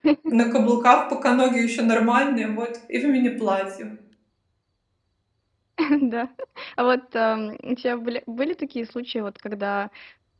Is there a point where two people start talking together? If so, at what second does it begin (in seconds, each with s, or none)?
none